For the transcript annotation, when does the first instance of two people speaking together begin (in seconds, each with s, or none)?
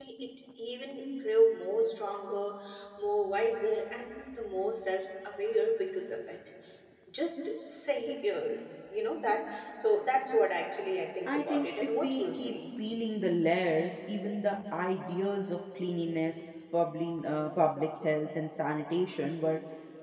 11.2 s